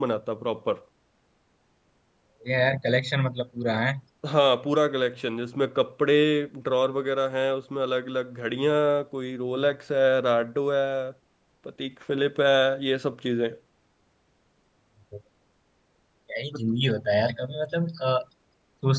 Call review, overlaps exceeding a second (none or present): none